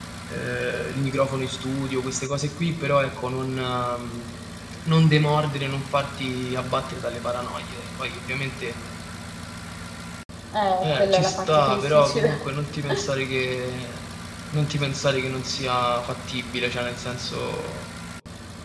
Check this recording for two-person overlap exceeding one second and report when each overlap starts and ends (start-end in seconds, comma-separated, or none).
10.8-12.4